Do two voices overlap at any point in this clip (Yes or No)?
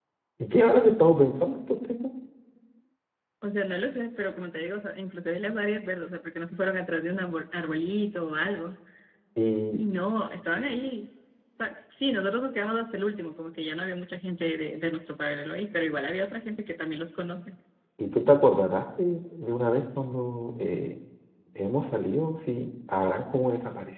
No